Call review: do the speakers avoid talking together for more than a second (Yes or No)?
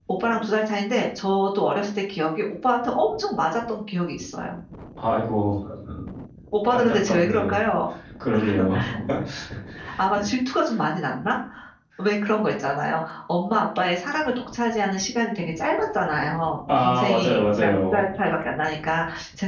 No